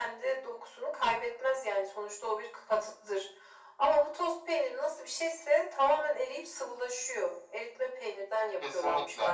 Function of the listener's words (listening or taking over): taking over